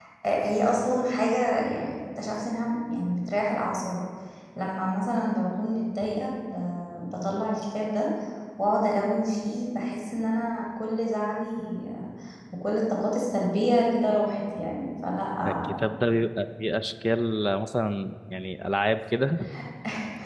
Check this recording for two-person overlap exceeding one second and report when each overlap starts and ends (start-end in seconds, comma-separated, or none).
none